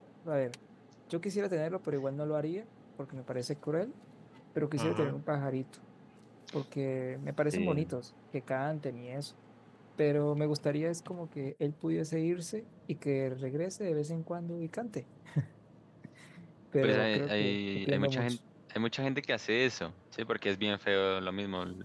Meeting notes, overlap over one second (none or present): present